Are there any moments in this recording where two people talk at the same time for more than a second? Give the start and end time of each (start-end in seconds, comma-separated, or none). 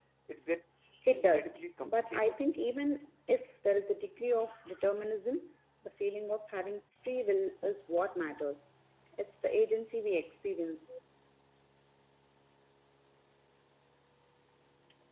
1.1-2.5